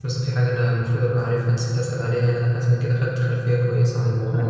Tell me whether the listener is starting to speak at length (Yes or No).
Yes